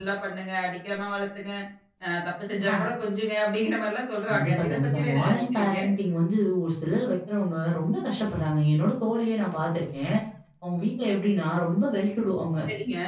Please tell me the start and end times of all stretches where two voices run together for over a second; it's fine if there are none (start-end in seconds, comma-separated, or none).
4.3-5.8